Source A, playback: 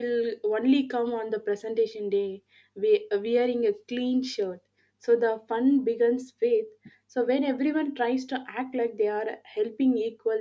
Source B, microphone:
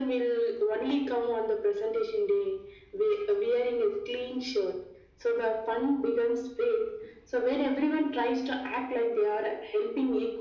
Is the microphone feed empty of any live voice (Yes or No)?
Yes